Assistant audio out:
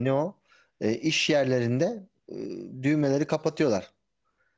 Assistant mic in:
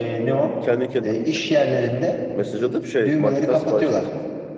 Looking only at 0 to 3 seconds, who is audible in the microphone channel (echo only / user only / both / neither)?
both